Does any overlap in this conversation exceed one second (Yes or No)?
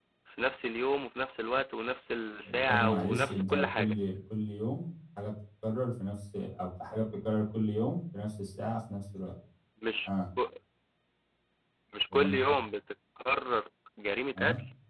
Yes